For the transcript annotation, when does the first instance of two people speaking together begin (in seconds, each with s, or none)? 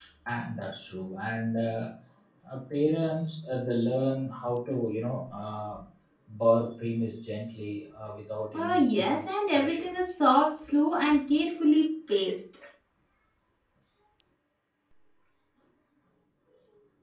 8.5 s